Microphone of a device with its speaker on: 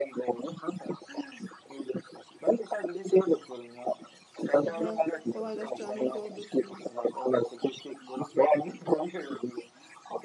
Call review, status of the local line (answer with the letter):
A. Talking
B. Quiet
A